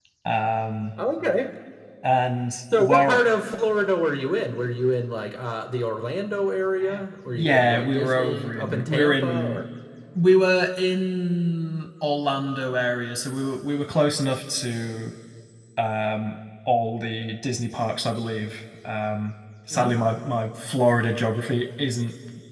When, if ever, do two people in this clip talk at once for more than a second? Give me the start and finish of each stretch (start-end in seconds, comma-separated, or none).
7.3-9.6